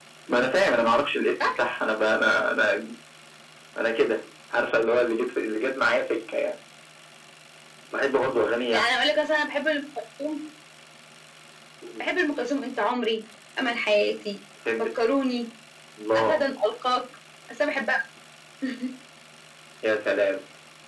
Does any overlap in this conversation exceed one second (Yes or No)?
No